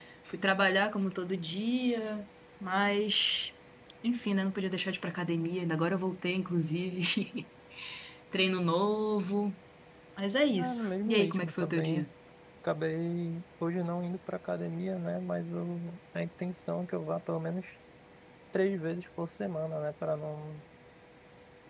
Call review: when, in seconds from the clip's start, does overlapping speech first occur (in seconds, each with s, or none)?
10.6 s